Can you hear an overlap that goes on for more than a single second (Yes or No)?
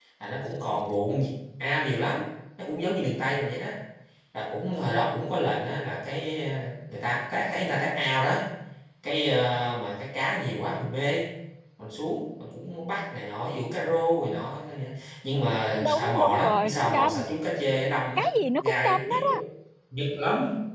Yes